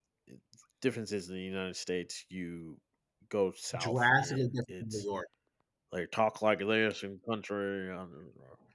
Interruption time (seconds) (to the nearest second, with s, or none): 4 s